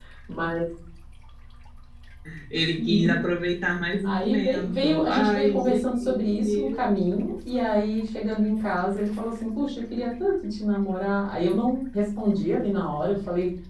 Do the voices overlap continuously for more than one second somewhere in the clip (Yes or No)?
Yes